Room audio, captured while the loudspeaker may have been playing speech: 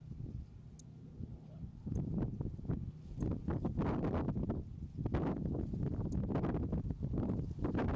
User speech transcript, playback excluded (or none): none